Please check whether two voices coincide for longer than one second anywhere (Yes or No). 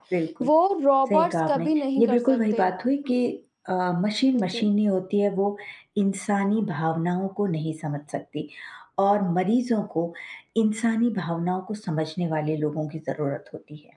Yes